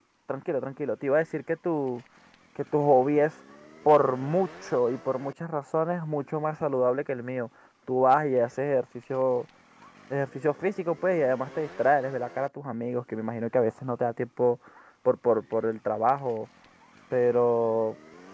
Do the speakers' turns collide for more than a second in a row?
No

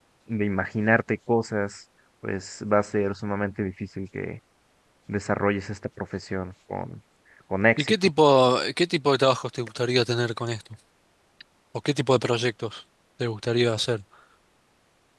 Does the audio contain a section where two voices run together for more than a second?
No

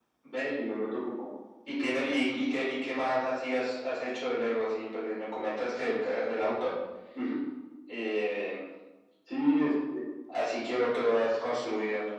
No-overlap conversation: Yes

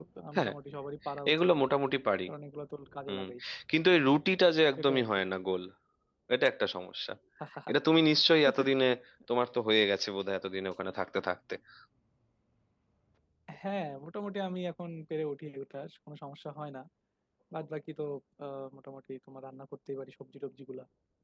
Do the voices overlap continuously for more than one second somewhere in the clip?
No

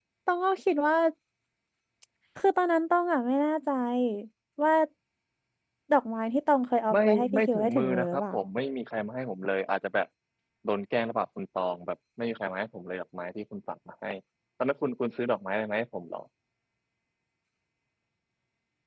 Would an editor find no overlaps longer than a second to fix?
No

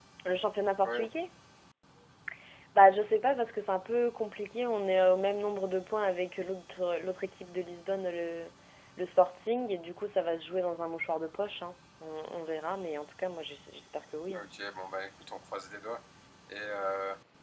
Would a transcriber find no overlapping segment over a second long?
Yes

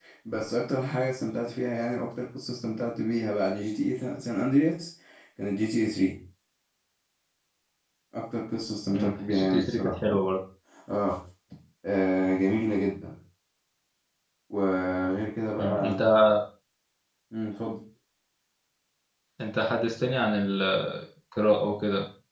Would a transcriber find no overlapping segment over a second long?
No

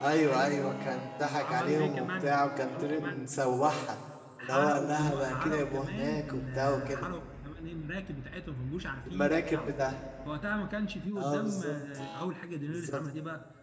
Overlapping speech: Yes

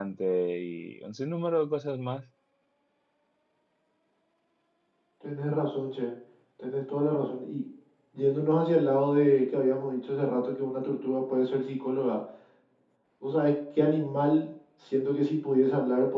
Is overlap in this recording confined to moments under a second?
Yes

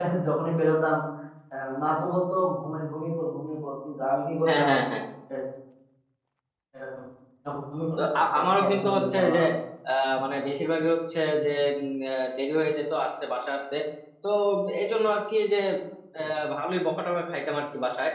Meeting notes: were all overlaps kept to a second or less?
No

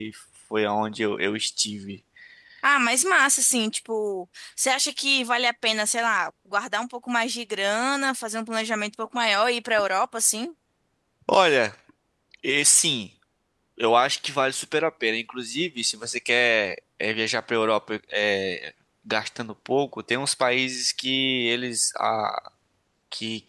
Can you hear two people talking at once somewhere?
No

